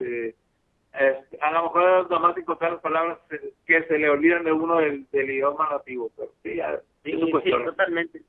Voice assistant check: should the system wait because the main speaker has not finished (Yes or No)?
No